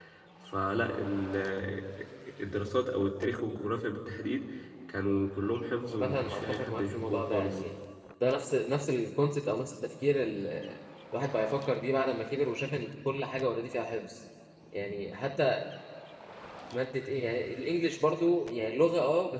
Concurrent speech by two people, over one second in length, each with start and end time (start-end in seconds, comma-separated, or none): 6.0-7.6